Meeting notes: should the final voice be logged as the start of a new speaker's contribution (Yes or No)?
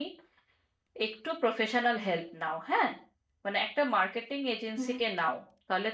No